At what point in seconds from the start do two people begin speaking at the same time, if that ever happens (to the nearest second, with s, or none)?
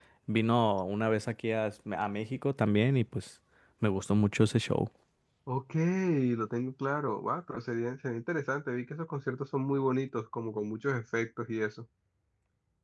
none